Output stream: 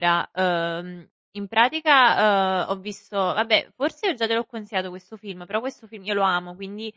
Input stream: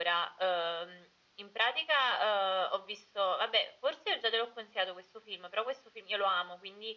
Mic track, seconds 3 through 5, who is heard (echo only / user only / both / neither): echo only